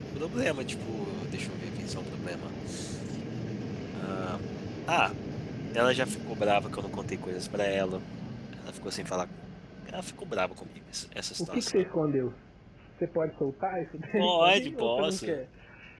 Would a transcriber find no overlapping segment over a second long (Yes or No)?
No